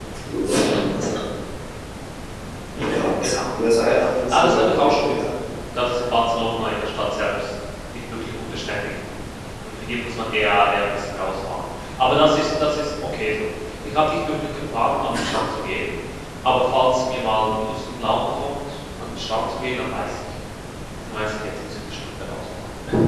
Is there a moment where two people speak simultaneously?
Yes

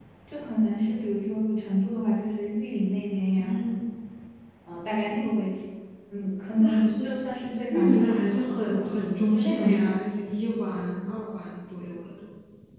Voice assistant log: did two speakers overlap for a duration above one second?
Yes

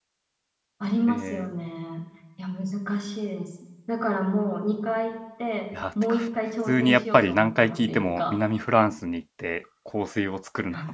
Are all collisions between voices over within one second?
No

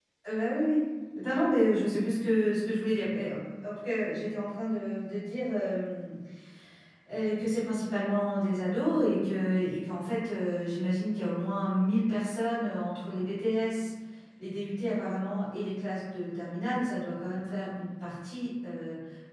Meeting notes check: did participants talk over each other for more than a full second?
No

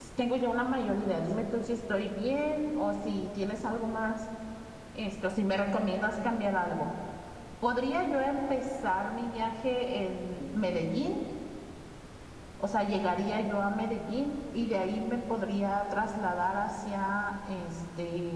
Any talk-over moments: No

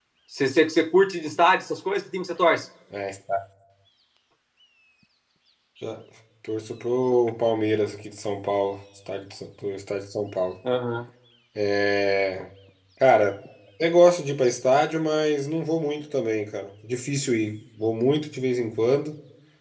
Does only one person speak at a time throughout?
Yes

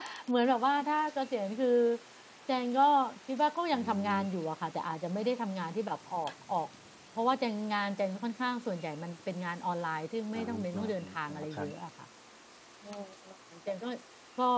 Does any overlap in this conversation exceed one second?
Yes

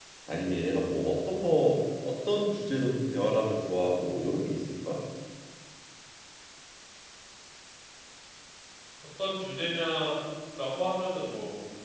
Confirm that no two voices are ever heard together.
Yes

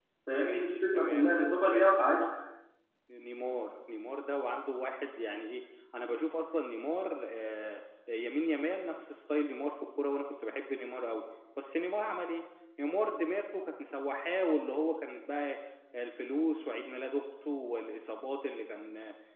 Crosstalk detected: Yes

